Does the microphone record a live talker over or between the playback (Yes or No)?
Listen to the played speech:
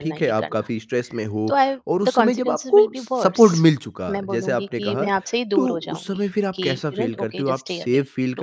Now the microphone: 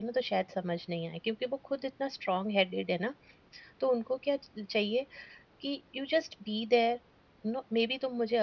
Yes